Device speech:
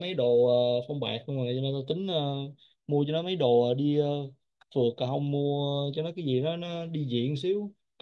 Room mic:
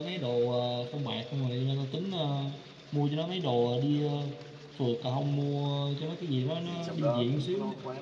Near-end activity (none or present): present